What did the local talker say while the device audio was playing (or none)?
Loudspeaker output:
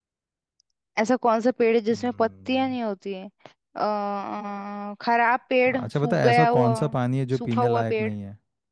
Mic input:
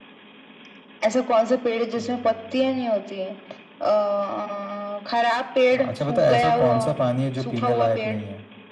none